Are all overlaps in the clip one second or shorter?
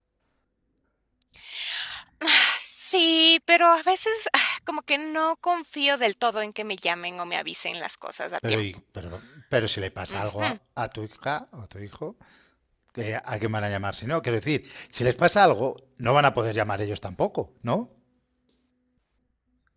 Yes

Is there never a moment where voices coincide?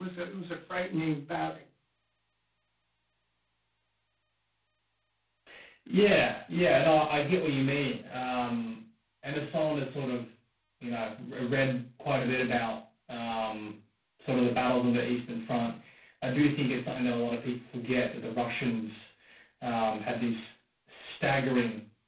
Yes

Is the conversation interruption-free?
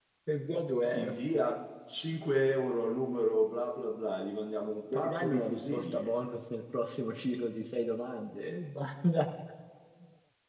No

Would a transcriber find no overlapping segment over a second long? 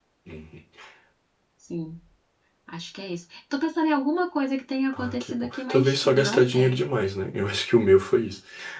No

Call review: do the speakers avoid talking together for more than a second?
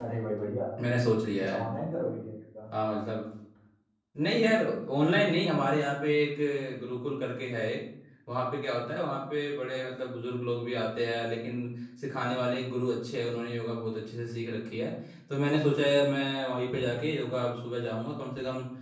Yes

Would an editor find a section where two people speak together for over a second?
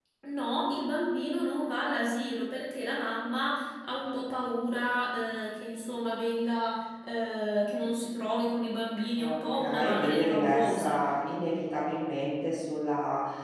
Yes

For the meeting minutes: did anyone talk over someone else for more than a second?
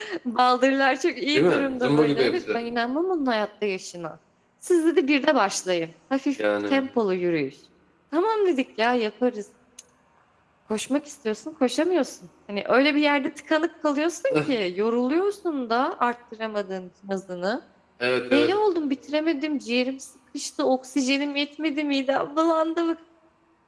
Yes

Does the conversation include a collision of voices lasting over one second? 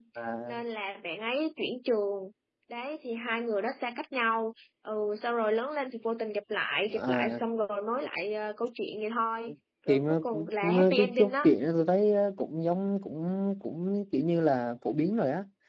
Yes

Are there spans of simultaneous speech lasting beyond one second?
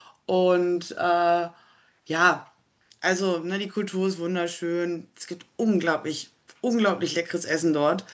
No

